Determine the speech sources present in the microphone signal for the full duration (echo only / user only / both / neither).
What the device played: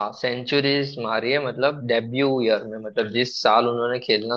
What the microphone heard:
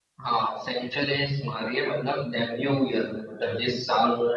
echo only